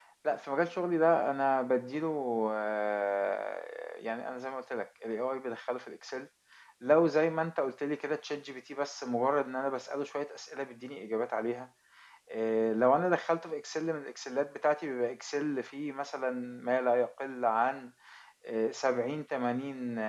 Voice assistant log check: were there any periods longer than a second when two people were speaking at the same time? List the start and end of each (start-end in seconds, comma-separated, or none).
none